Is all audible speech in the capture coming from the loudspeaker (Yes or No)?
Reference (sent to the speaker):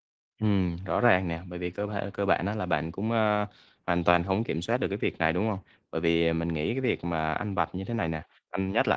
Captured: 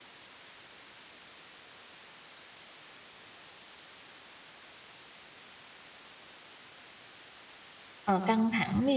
No